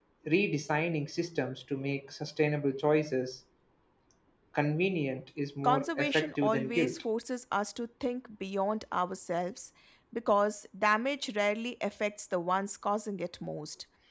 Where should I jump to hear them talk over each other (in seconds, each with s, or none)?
5.6 s